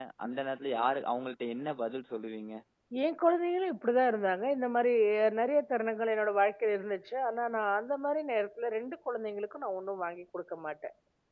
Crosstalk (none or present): none